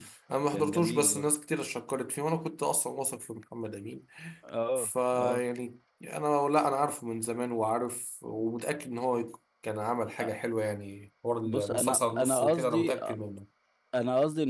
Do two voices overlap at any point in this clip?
Yes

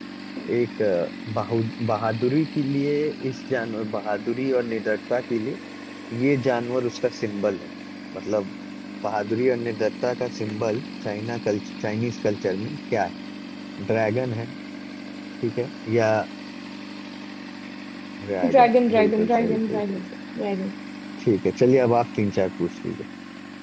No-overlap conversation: No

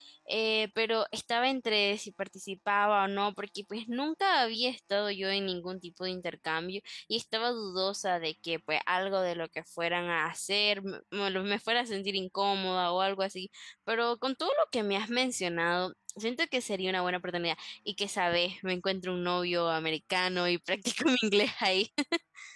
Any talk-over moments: No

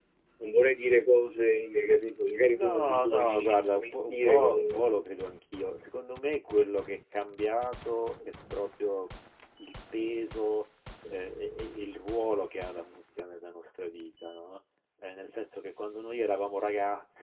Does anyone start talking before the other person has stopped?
Yes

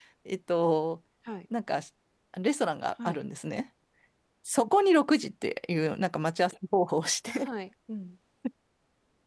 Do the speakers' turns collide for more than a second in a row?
No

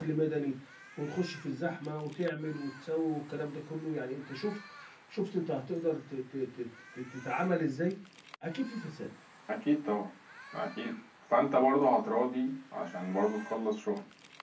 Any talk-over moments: No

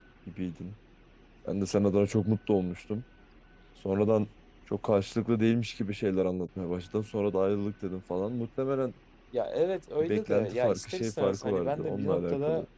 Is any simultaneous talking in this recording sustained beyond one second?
Yes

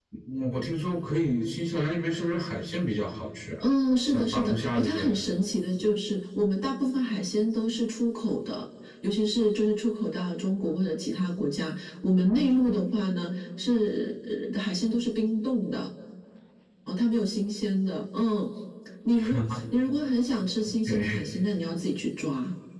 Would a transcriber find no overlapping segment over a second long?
No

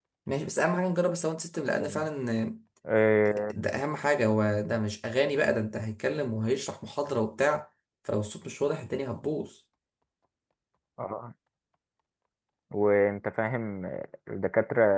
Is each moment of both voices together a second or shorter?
Yes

